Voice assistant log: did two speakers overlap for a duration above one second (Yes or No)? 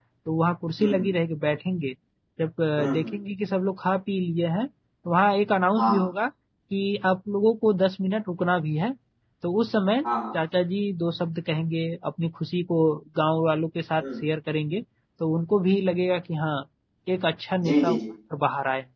No